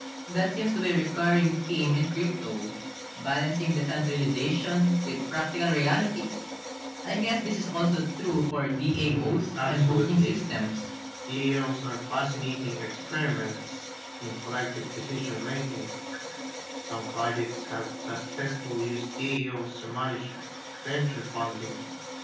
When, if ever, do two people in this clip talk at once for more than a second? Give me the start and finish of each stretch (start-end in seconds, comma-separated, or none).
9.0-10.4